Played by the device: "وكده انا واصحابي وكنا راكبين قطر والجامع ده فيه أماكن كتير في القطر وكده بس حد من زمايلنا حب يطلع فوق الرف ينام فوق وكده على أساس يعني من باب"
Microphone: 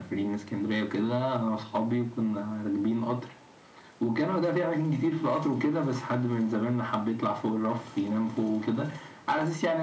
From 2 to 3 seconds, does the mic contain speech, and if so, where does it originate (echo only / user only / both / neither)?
echo only